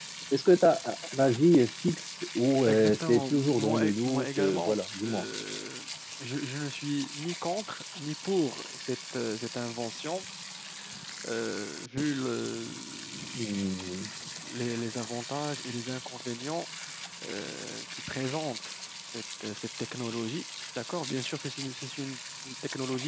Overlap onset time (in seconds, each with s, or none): 2.7 s